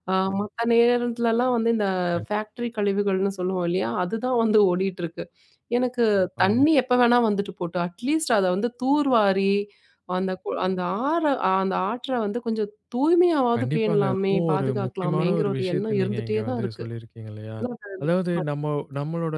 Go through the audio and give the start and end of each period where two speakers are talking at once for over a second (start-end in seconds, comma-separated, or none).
13.6-16.7